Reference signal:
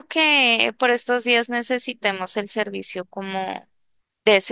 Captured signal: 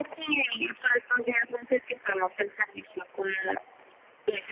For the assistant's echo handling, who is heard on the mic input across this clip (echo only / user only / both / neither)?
echo only